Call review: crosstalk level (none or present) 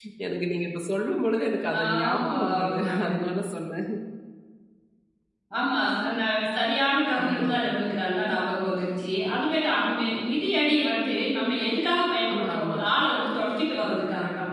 present